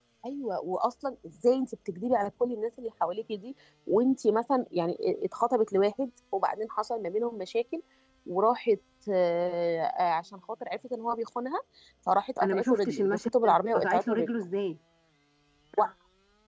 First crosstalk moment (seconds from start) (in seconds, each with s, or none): 12.4 s